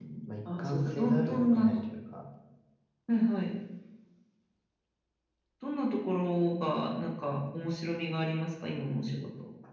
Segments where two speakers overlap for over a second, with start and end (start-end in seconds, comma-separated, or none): 0.6-1.8